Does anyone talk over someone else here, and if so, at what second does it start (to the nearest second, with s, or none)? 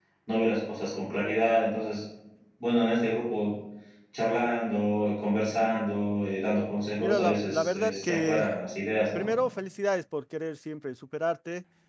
7 s